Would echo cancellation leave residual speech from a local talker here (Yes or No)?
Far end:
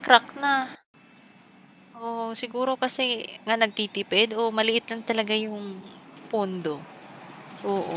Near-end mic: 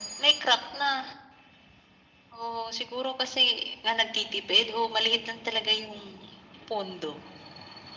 No